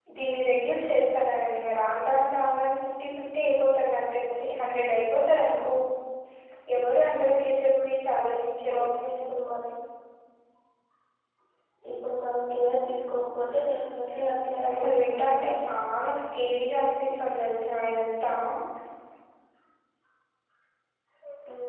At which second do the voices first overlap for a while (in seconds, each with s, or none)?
14.1 s